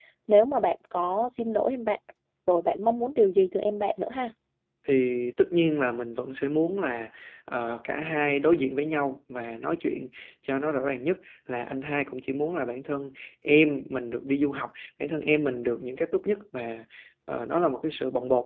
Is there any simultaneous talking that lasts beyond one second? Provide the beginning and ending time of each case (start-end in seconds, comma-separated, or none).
none